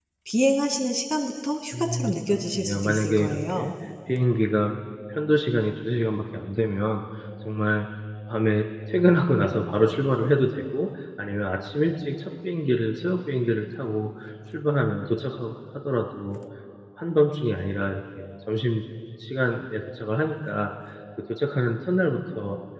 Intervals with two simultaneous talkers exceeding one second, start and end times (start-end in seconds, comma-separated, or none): 1.7-3.6